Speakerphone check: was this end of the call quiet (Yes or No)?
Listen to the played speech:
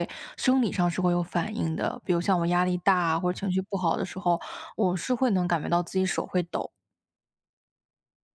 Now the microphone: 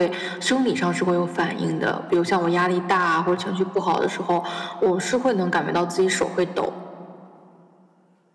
Yes